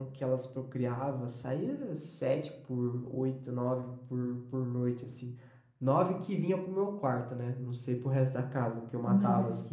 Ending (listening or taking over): listening